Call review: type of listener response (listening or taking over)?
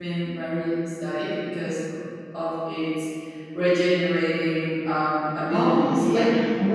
taking over